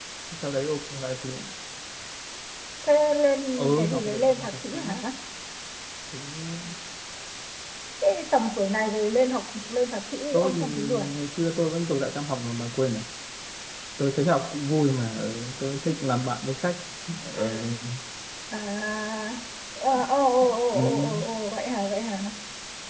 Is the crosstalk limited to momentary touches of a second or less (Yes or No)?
No